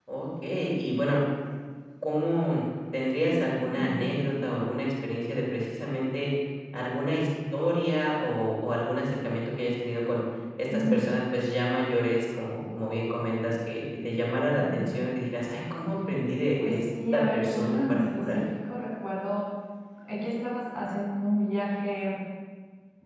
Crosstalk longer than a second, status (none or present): present